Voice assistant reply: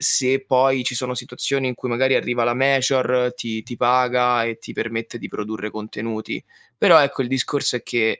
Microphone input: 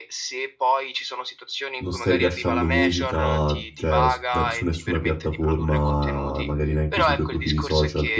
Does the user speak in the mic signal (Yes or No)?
Yes